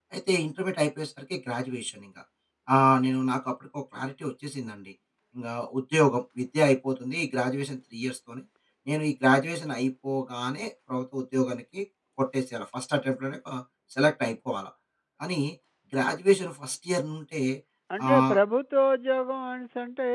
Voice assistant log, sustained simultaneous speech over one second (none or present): none